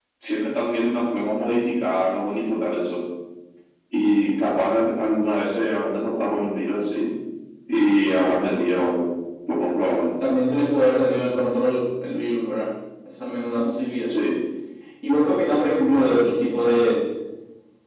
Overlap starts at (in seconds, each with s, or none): none